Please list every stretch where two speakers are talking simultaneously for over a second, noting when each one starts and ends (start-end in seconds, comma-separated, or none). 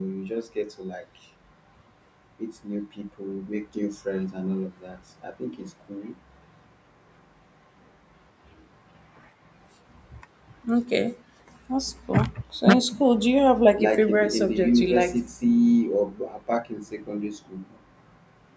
13.8-15.2